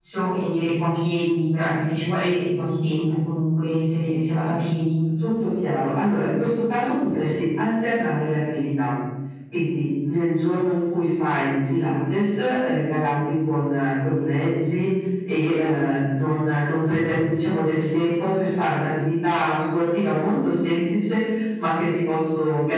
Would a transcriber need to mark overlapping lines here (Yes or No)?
No